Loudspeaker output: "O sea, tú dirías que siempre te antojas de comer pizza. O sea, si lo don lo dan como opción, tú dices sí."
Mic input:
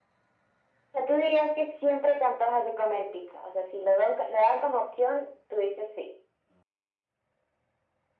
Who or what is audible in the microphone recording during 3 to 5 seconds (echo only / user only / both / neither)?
echo only